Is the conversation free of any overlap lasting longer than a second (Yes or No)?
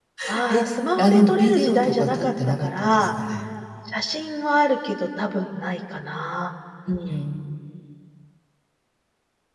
No